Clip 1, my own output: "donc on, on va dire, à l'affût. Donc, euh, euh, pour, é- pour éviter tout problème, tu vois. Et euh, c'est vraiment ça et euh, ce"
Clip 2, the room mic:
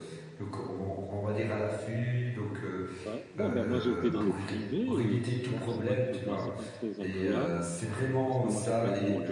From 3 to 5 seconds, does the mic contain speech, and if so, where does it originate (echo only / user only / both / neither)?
both